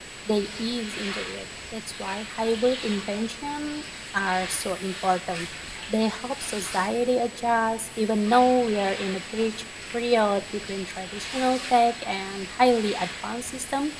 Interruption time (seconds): none

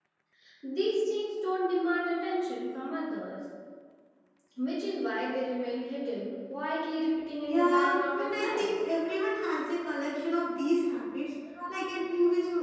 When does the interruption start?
7.4 s

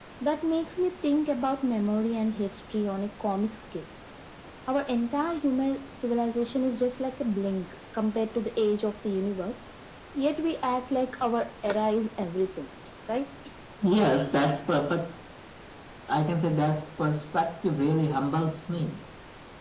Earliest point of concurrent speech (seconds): none

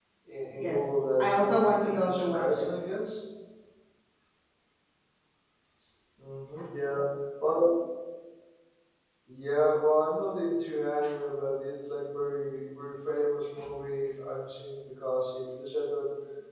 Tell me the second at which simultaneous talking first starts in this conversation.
0.5 s

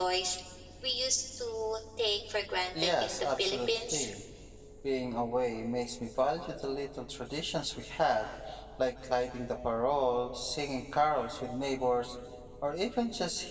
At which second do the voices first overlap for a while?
2.8 s

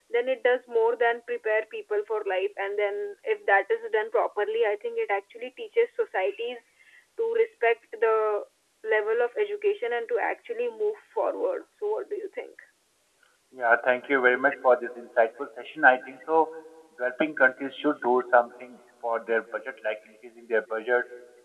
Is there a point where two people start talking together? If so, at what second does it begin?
none

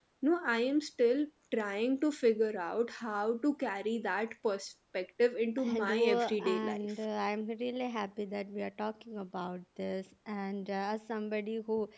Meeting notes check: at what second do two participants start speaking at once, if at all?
5.6 s

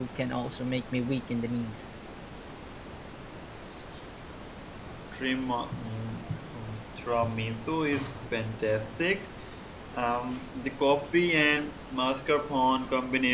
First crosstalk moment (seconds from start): none

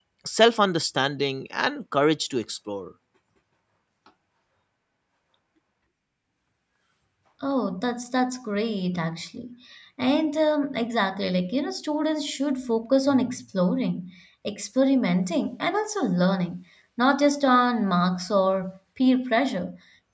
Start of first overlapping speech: none

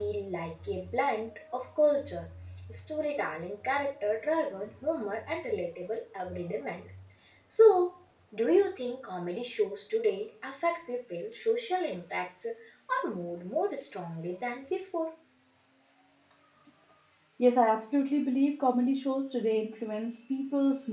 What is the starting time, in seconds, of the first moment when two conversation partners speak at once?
none

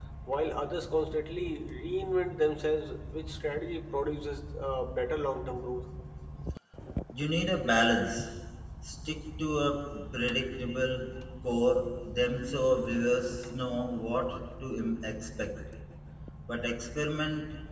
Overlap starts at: none

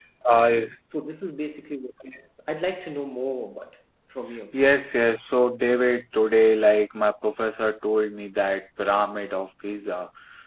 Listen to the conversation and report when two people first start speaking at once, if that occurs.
none

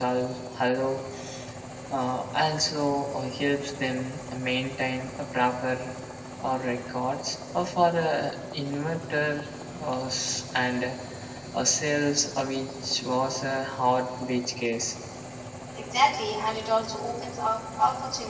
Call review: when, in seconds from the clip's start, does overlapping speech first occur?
none

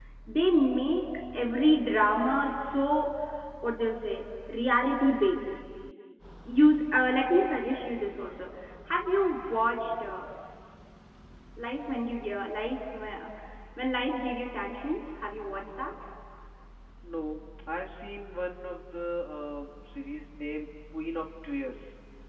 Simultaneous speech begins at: none

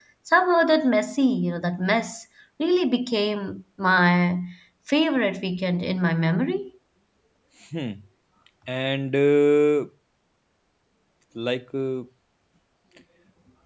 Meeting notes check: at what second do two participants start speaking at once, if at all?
none

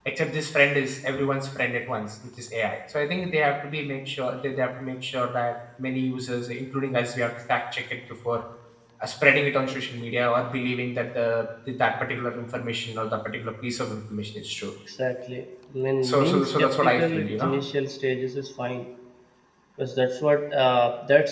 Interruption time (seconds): 16.0 s

